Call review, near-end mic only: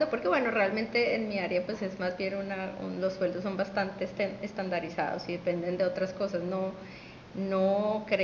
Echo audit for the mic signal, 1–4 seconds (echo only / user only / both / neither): echo only